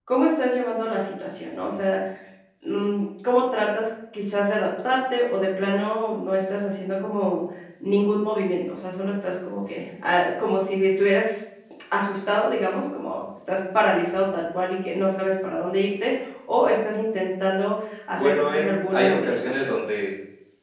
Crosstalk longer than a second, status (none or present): present